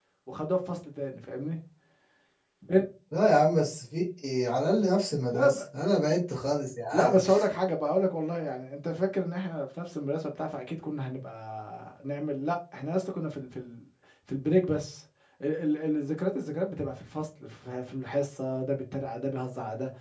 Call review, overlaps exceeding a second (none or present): none